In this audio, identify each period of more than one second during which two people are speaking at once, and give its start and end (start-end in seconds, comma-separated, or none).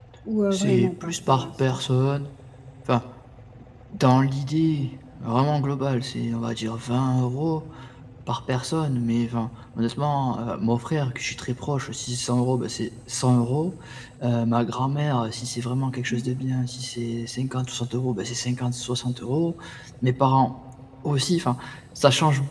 0.5-1.8